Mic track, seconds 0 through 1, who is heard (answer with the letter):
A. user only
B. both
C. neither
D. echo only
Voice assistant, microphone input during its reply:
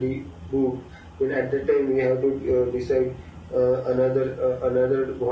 D